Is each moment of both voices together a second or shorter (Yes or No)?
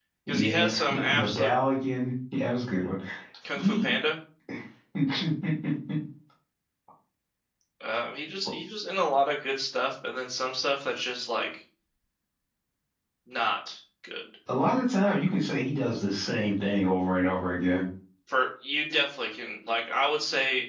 No